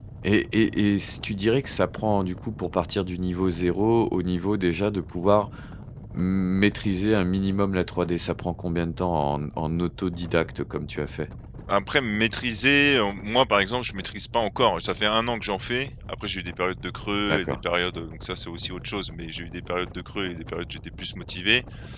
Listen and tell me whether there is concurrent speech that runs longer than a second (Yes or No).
No